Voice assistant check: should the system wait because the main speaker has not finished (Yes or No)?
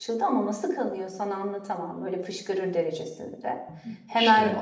Yes